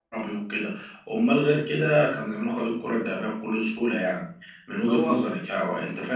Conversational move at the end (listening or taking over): listening